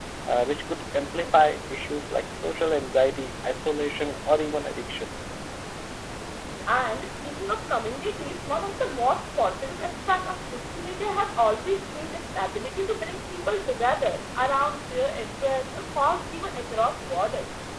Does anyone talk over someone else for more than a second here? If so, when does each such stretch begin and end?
none

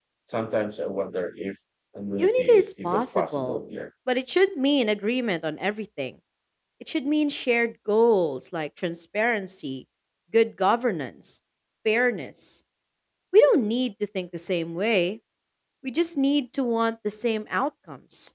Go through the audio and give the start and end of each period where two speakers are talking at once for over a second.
2.2-3.6

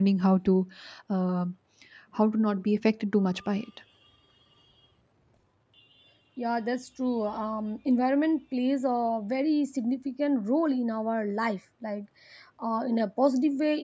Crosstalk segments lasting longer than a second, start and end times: none

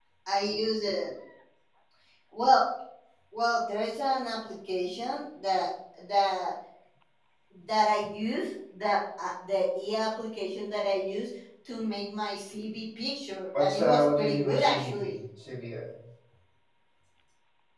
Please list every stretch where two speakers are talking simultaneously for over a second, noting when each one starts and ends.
13.6-15.1

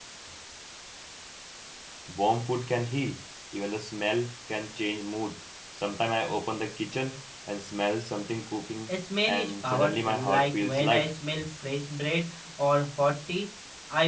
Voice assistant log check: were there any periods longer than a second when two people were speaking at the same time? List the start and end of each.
9.3-11.1

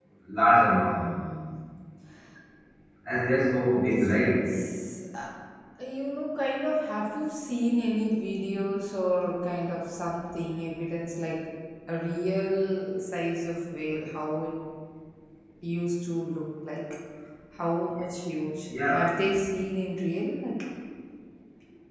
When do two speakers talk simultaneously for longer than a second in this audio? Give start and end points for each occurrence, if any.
none

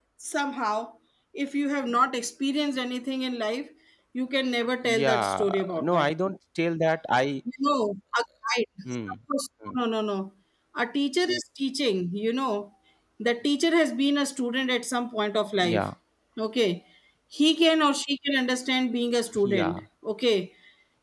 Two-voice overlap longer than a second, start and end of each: 4.8-6.1

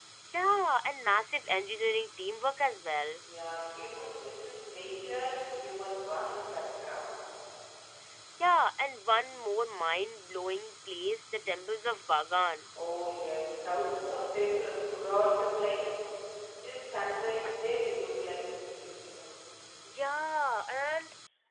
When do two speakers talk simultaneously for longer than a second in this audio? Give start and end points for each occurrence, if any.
none

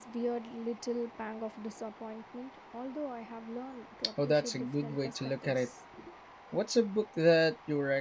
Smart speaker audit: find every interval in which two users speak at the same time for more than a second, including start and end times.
4.2-5.7

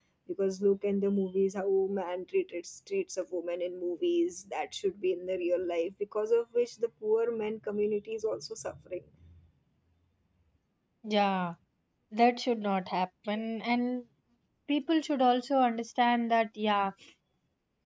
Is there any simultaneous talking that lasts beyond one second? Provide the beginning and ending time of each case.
none

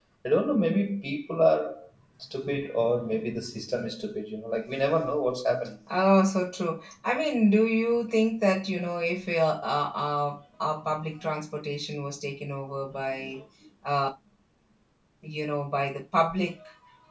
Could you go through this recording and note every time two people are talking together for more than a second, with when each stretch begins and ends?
none

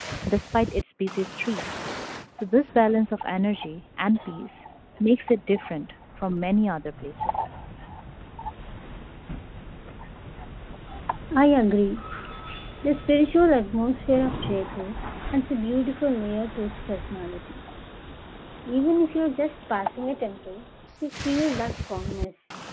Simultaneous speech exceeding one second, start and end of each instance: none

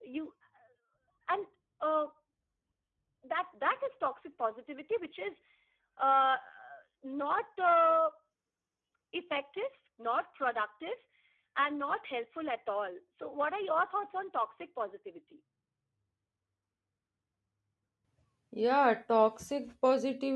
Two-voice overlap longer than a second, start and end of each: none

